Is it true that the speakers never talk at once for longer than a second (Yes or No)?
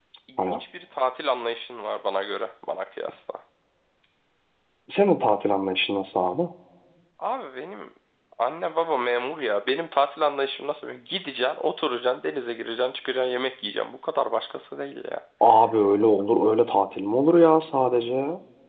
Yes